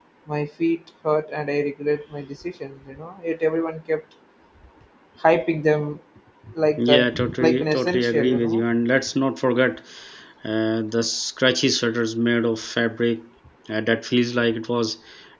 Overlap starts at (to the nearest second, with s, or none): 7 s